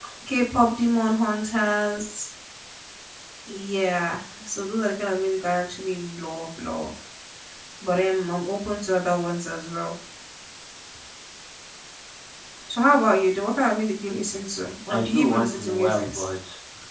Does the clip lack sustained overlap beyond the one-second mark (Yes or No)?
No